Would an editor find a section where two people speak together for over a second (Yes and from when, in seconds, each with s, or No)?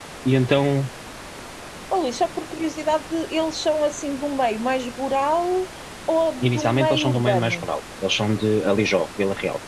Yes, from 6.4 s